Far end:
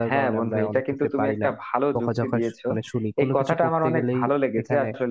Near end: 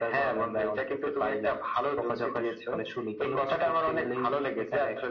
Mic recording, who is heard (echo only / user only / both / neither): echo only